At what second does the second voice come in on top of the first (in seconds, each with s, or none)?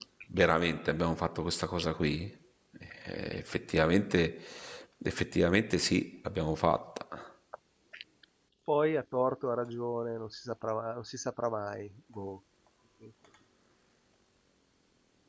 none